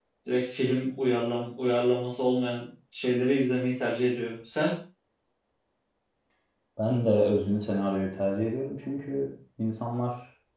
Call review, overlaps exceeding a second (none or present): none